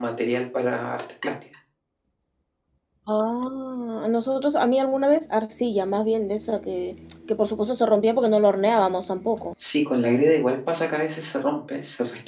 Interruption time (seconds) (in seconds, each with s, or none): none